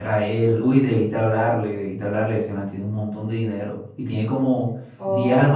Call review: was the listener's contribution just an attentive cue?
Yes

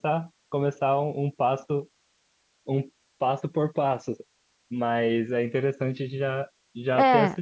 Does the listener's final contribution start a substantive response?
No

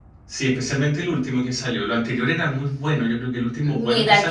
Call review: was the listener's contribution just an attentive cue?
No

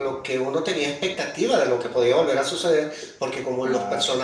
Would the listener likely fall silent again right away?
Yes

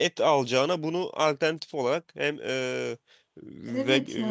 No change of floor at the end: No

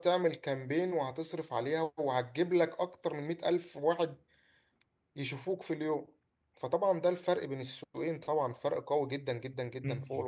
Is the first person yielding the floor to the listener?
Yes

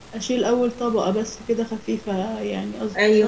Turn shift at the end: Yes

